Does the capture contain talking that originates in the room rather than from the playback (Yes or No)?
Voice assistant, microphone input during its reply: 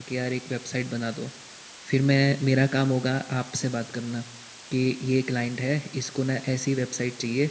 Yes